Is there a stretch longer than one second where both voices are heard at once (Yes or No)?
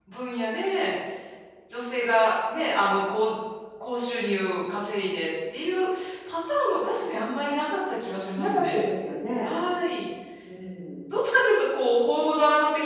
No